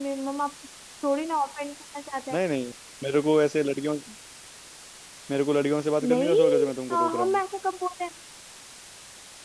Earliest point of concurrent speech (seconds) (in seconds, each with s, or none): 6.0 s